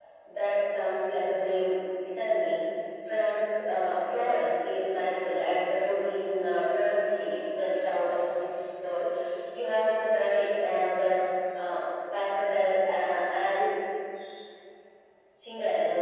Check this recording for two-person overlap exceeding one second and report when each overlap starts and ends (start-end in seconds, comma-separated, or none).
none